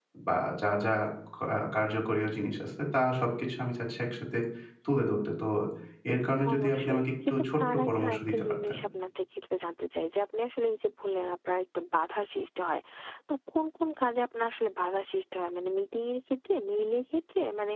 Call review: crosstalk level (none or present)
present